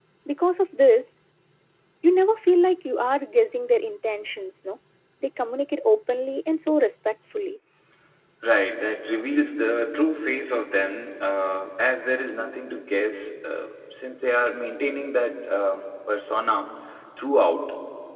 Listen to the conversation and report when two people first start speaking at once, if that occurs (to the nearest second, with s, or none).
none